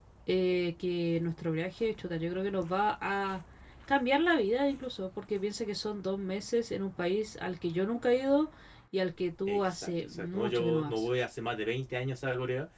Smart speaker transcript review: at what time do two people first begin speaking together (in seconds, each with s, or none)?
9.5 s